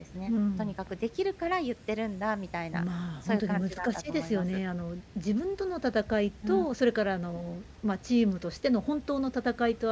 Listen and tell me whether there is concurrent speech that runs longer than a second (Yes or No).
Yes